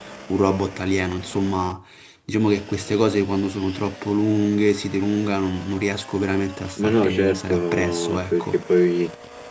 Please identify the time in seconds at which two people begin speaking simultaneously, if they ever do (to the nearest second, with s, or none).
7 s